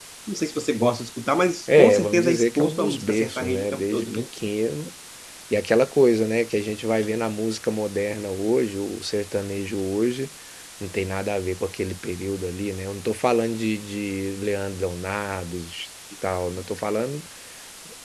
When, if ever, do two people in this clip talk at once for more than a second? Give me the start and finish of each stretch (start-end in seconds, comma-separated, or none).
1.8-4.1